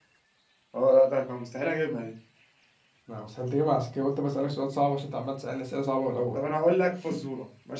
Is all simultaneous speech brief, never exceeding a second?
Yes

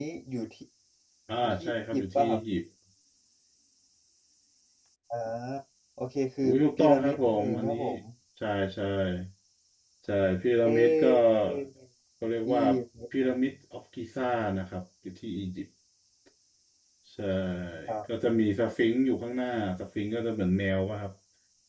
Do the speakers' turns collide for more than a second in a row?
Yes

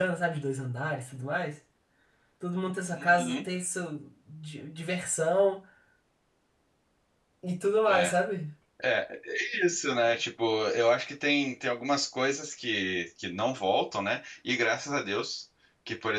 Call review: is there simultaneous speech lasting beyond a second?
No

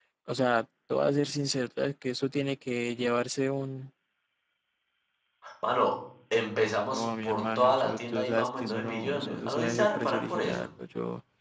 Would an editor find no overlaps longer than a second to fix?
No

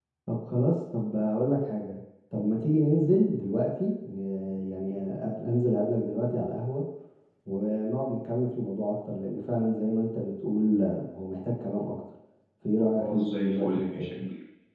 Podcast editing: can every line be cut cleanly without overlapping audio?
No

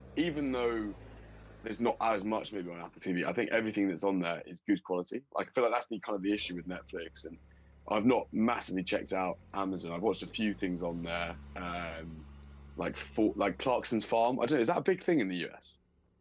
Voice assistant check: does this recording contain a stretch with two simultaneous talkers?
No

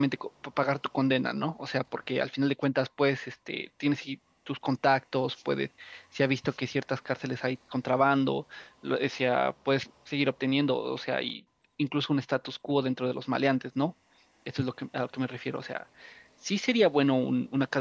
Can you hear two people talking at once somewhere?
No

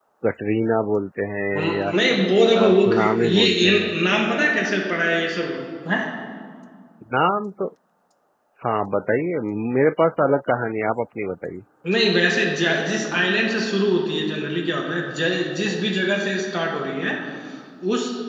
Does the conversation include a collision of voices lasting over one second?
Yes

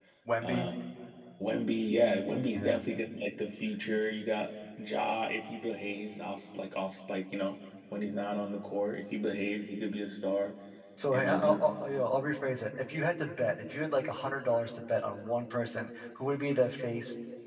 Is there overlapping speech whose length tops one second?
No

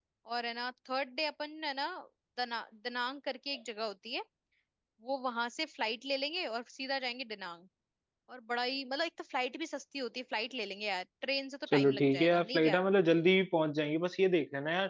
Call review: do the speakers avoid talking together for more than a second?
No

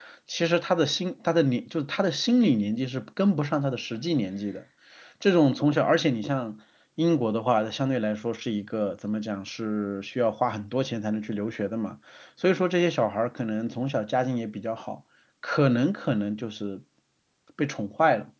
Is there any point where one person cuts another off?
No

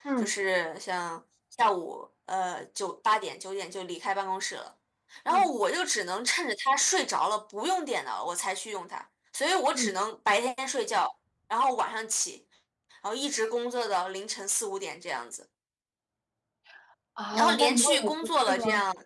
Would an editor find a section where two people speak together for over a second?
Yes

